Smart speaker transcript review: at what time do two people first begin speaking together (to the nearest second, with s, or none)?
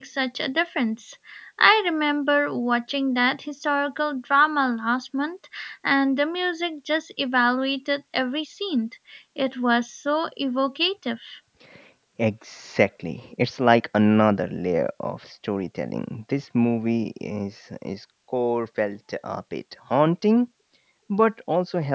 none